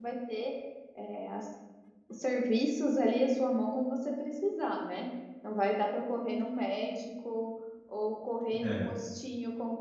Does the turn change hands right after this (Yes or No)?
No